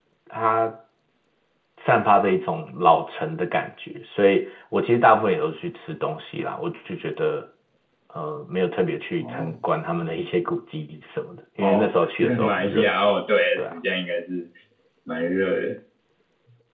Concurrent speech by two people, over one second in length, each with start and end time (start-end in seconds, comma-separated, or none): 11.6-12.9